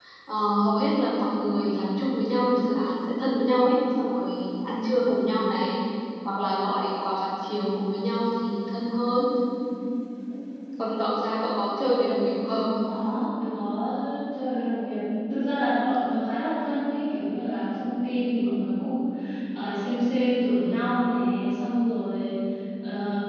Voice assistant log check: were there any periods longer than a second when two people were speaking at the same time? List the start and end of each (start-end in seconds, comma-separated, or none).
none